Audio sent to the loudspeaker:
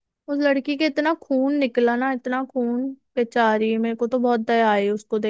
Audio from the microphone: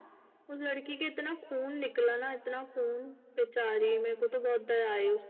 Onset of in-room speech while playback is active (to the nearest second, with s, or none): none